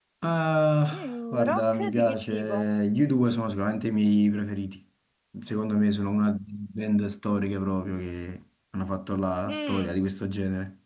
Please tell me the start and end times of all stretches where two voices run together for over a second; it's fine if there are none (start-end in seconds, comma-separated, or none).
0.9-2.7